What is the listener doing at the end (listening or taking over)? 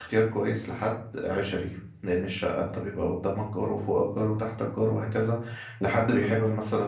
listening